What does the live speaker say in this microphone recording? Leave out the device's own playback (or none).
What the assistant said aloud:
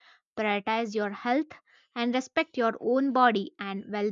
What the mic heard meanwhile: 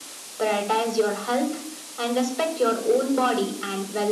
none